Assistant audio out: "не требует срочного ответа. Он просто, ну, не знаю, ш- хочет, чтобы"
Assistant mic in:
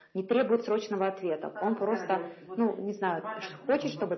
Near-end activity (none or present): present